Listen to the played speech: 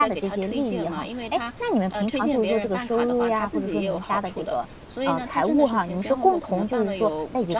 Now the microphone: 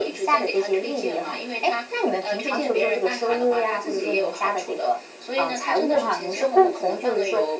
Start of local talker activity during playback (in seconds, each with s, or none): none